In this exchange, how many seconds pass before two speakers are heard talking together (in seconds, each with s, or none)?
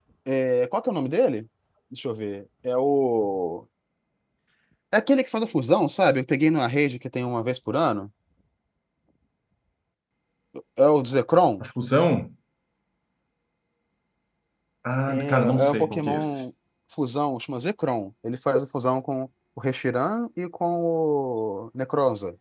15.1 s